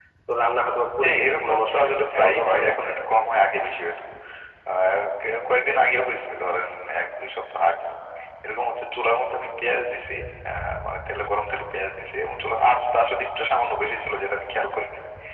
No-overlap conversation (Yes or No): No